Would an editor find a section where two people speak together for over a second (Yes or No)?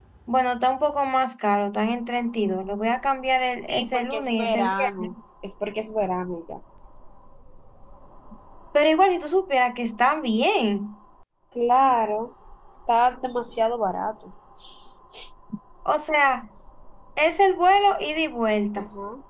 Yes